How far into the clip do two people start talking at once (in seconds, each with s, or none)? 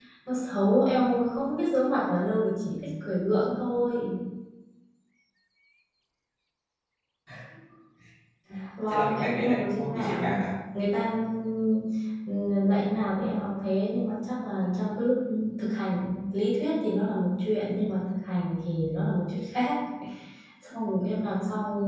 8.9 s